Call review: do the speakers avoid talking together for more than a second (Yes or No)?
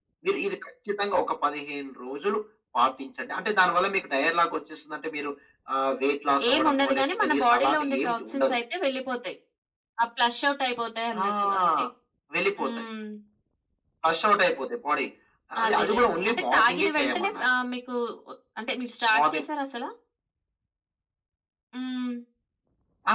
No